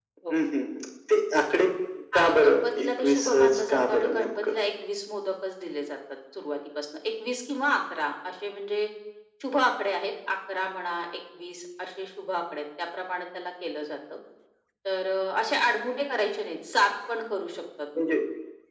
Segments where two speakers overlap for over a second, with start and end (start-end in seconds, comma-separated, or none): 2.1-4.6